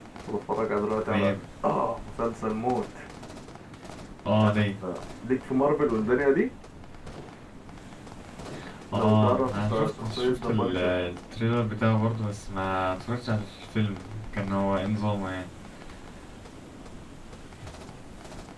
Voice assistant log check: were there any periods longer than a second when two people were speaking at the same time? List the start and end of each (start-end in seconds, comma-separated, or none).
8.9-10.9